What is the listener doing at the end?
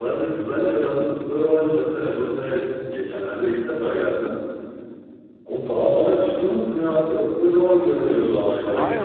taking over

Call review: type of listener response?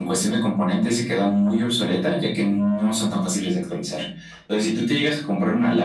listening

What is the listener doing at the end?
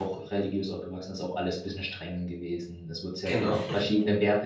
listening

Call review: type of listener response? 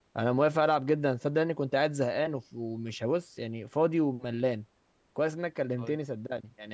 listening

